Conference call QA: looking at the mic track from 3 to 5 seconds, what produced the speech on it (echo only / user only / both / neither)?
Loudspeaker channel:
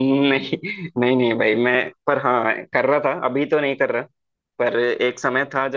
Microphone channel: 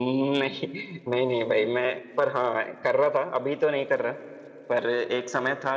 echo only